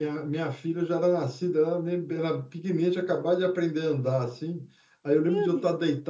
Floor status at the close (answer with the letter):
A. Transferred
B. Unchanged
B